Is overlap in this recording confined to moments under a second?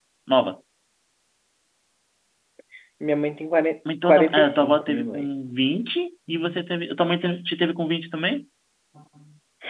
No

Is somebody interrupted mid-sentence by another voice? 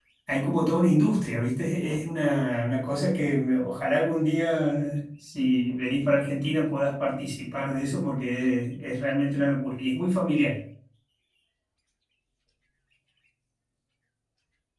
No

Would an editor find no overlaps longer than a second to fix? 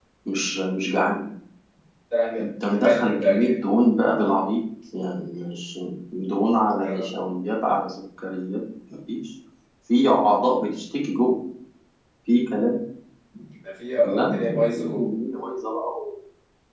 No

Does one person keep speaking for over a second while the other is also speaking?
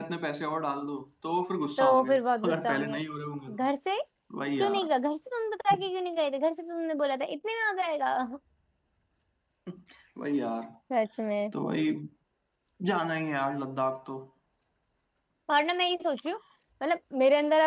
Yes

